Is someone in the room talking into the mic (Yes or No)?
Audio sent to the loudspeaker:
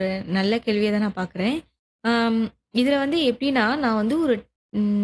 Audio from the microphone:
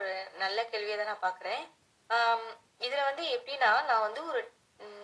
No